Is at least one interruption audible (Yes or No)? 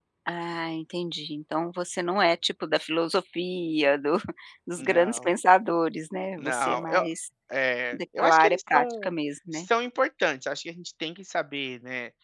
Yes